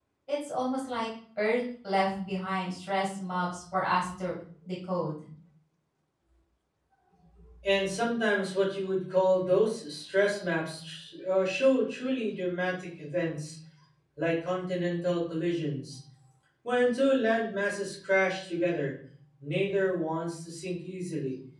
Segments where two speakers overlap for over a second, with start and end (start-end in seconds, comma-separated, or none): none